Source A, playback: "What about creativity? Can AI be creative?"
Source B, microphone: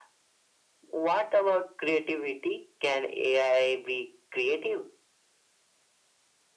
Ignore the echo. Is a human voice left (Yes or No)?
No